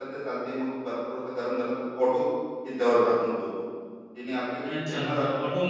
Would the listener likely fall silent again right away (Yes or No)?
No